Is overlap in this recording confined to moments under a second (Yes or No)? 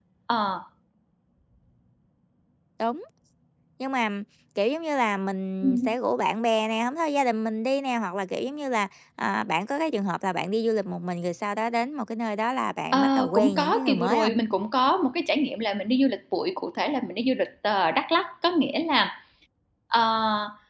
No